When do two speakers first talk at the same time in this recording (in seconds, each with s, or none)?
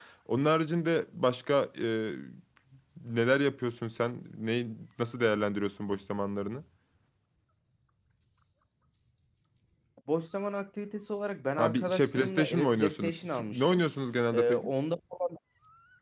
11.6 s